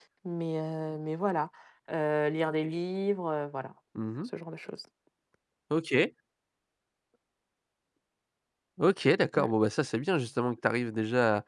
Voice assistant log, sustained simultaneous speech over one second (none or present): none